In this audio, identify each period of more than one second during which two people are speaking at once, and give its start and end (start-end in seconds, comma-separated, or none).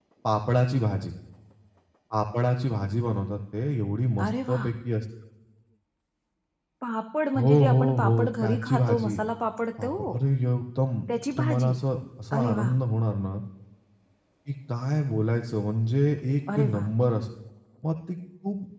7.3-9.2